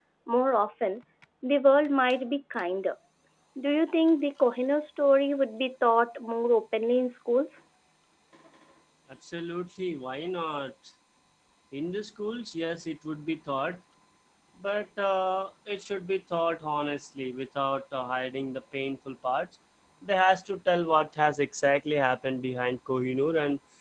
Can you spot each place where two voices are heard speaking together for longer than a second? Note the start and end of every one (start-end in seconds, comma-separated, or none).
none